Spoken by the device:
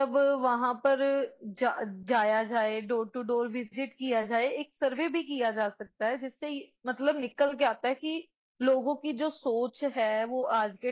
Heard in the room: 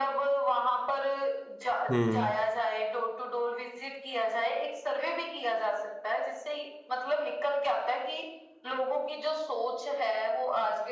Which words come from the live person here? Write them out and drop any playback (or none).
हम्म